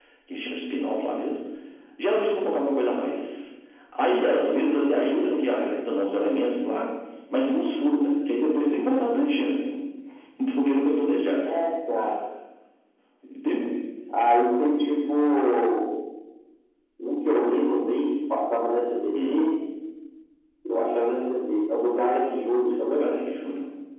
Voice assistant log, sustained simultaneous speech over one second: none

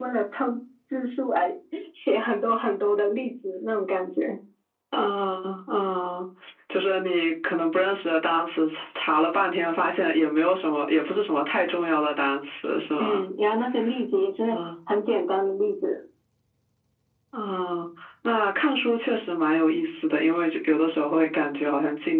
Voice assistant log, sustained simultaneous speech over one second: none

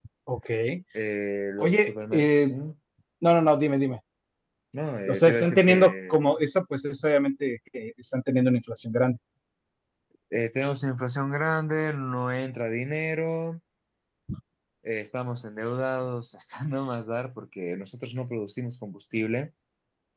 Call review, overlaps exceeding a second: present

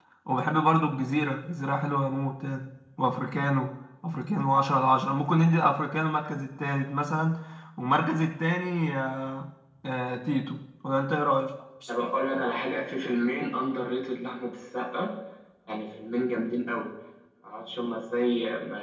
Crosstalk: none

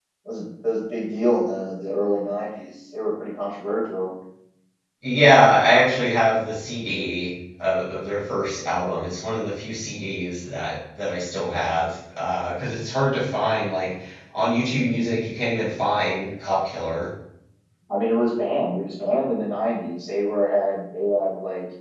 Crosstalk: none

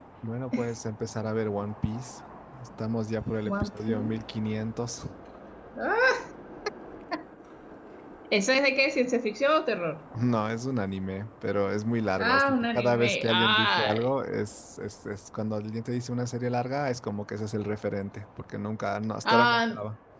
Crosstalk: present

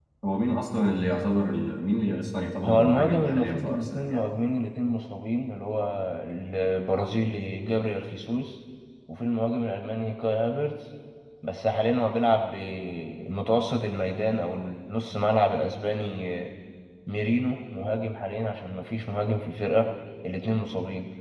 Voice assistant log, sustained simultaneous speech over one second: present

